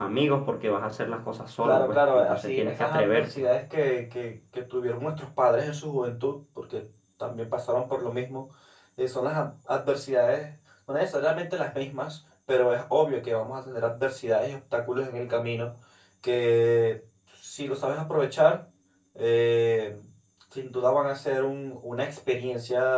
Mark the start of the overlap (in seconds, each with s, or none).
1.6 s